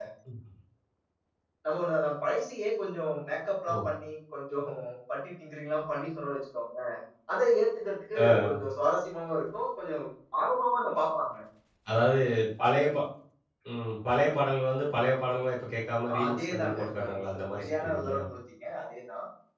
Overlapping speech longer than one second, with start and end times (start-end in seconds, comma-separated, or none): 16.2-18.2